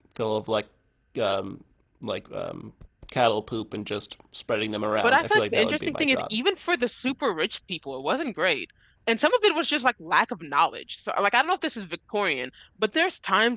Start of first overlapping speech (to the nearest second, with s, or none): 5 s